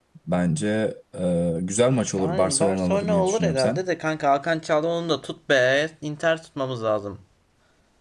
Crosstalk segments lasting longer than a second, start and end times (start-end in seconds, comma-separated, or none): 2.2-3.8